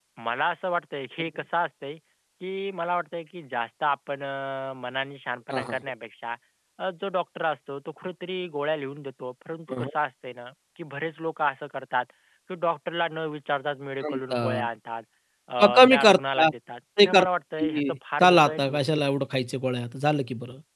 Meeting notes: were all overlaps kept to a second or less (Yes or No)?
No